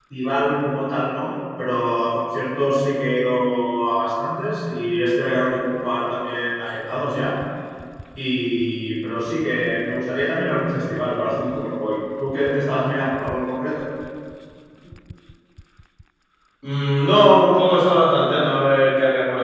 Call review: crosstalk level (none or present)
none